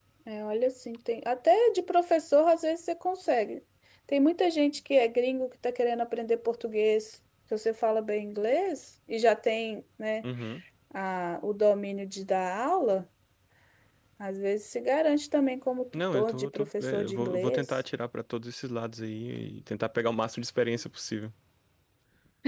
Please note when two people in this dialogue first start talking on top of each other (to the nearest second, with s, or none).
16 s